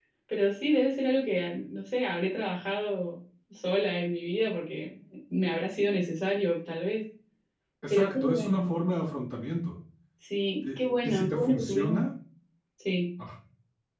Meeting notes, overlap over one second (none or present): present